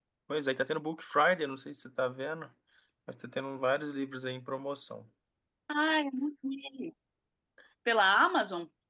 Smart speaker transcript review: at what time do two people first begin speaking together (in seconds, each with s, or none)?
none